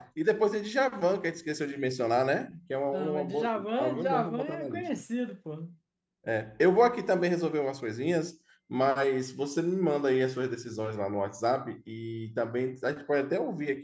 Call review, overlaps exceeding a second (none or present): present